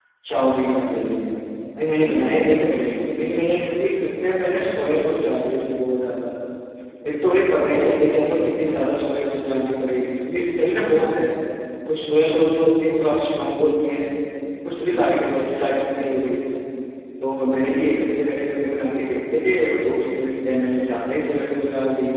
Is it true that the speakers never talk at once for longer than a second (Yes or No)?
Yes